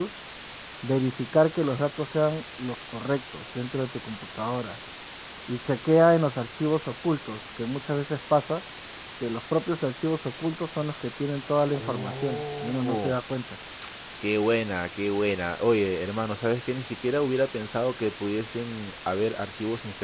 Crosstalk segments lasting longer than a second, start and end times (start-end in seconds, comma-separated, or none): 11.7-13.2